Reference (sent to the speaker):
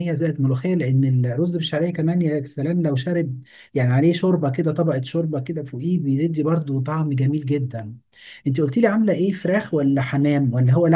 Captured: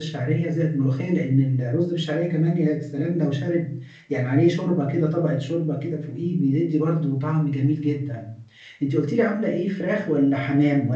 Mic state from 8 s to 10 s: echo only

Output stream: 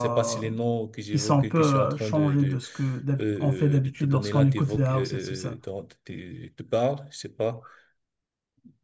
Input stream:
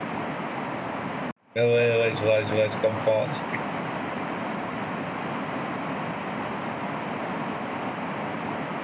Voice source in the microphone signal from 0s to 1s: neither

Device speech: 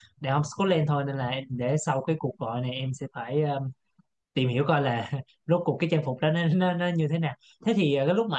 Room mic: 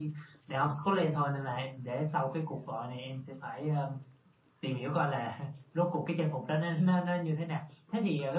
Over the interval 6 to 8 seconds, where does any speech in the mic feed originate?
echo only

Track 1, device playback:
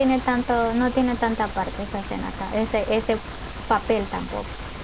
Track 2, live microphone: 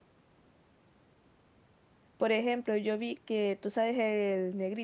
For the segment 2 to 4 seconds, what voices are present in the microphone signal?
user only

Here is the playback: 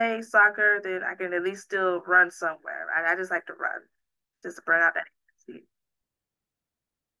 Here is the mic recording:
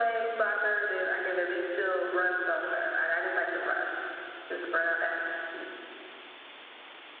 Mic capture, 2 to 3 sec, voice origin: echo only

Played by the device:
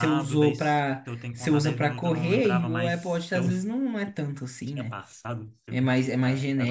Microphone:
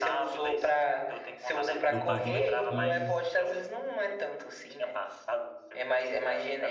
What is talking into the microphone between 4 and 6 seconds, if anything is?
echo only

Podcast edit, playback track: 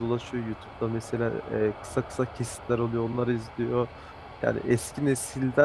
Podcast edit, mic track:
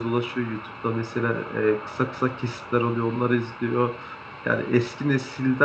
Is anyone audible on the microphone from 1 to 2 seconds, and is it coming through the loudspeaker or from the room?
echo only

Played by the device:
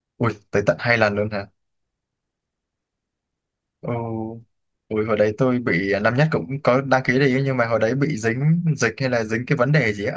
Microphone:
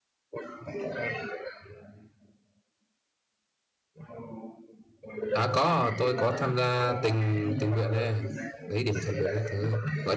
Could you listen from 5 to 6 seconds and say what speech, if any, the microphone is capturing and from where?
both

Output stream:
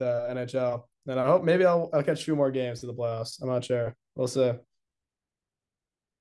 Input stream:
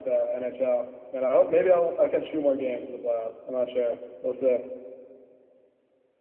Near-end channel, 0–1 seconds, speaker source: echo only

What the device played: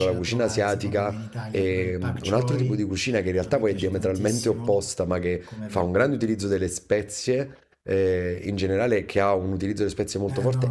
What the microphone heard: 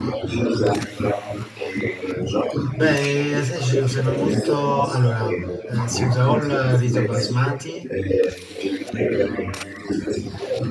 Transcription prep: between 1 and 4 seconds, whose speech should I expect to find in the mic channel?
both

